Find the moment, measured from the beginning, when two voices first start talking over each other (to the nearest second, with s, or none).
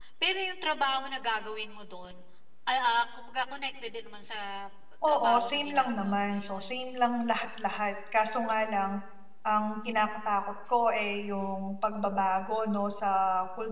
5 s